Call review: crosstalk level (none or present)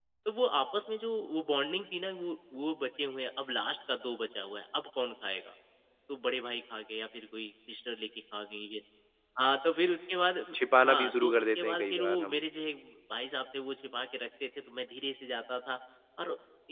present